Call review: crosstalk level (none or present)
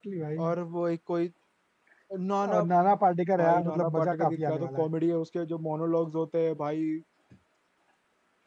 present